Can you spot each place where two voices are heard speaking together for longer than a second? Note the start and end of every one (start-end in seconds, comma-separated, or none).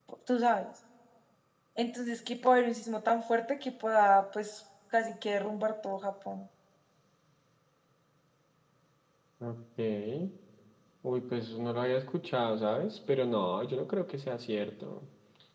none